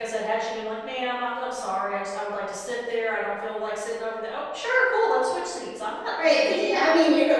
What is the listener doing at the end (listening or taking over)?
taking over